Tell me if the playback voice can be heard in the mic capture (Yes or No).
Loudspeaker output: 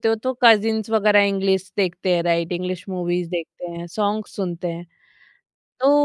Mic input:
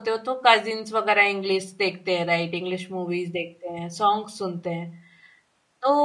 Yes